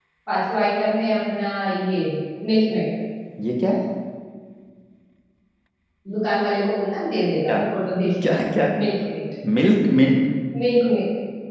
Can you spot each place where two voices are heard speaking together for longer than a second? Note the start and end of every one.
none

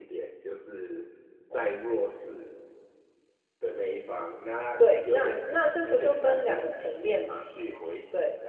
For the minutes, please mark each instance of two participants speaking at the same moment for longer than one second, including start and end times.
4.8-7.4

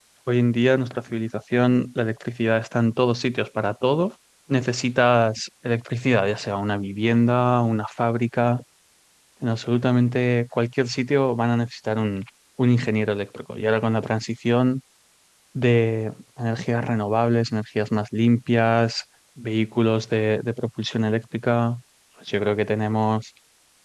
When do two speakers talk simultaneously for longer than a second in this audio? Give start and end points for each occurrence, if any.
none

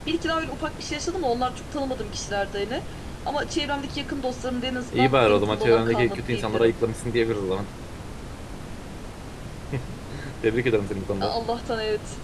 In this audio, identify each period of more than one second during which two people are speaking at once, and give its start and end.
4.9-6.7

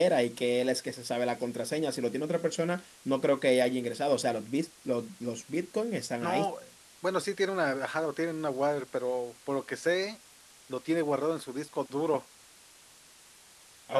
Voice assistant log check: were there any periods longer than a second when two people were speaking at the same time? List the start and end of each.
none

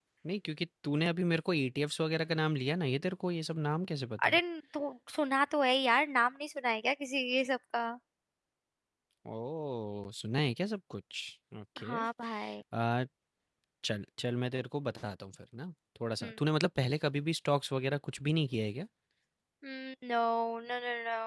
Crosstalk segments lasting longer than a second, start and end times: none

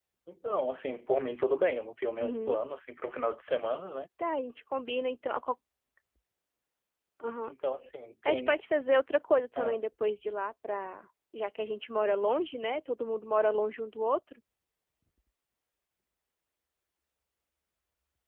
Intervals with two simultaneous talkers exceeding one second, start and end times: none

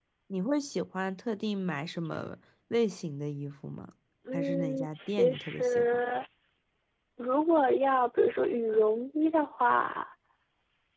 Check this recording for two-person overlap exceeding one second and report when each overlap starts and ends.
4.3-6.0

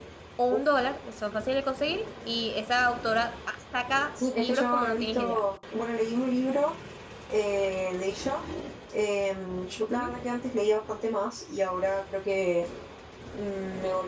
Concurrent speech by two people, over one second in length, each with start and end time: 4.2-5.4

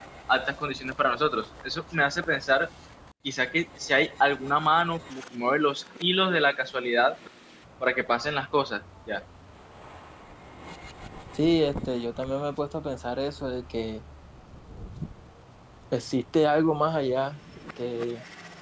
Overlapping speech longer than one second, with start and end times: none

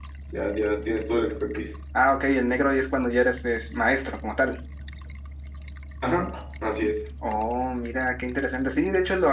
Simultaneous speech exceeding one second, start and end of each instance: none

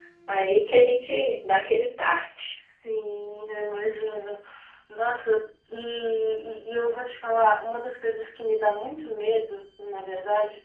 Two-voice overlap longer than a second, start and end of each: none

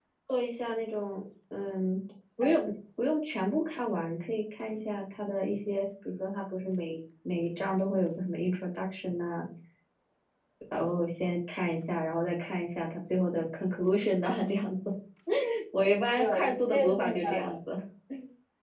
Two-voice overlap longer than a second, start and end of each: 16.2-17.6

